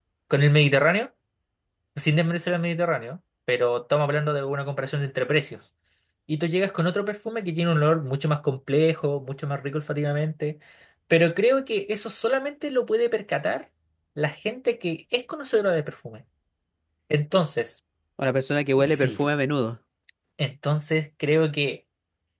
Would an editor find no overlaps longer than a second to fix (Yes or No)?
Yes